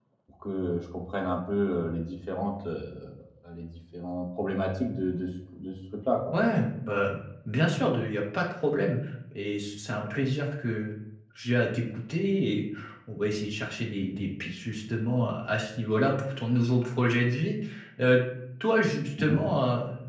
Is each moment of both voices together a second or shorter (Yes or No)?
Yes